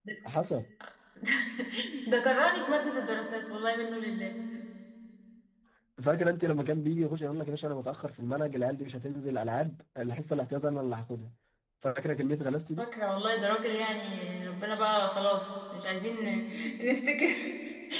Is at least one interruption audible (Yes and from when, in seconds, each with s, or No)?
No